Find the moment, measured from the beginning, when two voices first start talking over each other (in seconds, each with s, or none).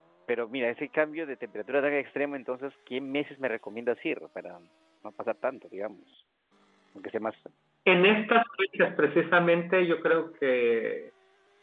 none